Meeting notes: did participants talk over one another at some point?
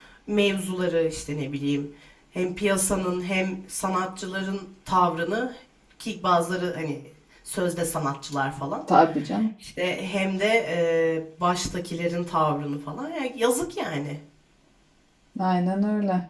No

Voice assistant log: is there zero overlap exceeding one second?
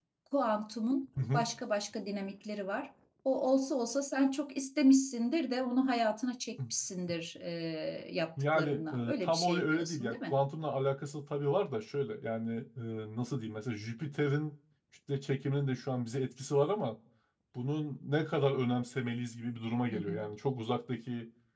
No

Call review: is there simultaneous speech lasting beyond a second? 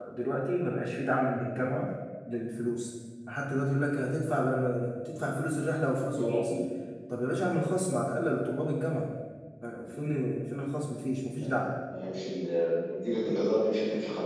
No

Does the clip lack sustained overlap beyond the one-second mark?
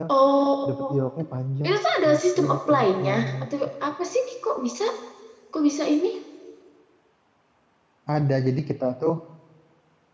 No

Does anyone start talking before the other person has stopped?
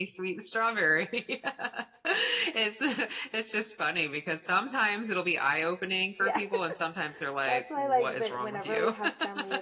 Yes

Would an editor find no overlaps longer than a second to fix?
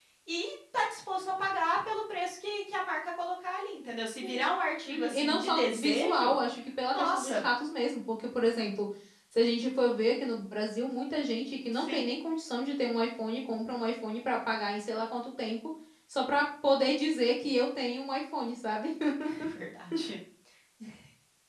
No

